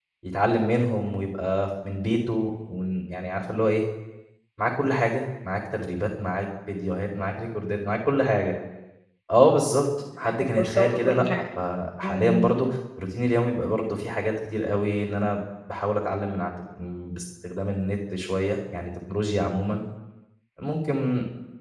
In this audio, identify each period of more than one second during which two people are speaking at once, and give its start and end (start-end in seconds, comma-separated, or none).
10.2-11.4